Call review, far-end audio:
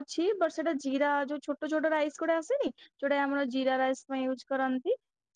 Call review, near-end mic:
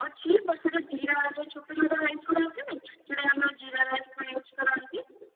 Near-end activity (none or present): none